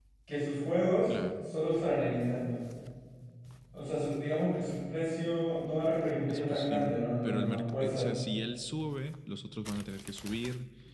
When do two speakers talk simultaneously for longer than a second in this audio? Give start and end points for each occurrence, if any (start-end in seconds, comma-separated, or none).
6.3-8.1